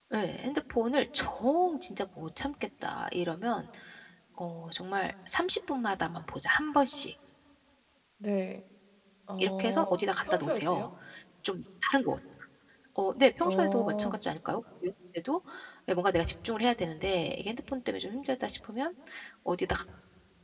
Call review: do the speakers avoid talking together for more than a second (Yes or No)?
No